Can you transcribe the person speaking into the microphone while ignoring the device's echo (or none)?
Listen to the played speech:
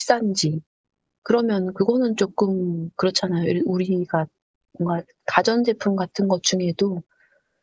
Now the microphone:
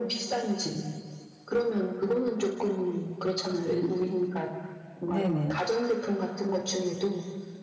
네네.